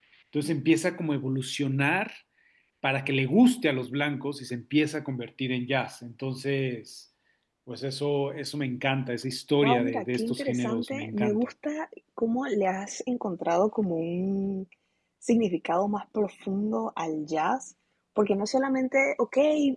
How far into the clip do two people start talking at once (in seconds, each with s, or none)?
9.6 s